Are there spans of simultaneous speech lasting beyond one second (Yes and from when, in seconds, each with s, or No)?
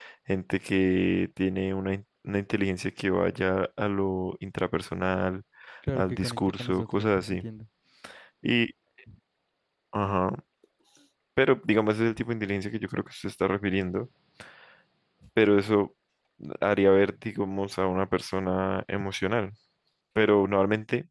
Yes, from 5.9 s